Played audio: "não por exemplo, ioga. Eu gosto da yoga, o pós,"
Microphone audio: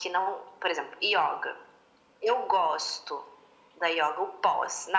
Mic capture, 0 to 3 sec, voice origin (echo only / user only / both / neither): echo only